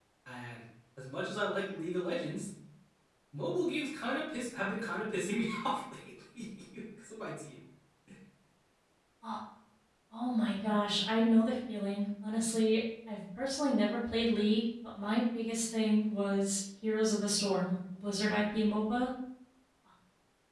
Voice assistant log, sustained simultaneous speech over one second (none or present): none